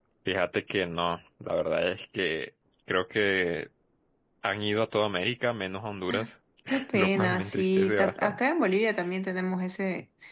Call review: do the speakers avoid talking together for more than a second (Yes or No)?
No